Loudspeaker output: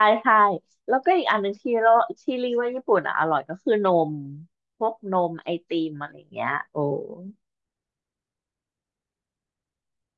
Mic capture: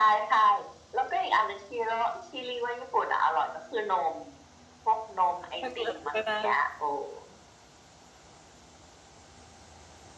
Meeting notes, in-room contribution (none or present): present